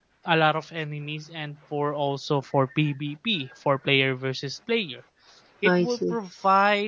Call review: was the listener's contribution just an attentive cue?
Yes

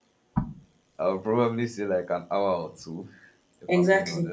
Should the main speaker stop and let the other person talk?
Yes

